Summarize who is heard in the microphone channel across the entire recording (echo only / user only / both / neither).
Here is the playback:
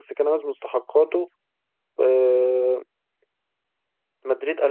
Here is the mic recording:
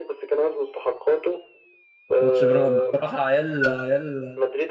both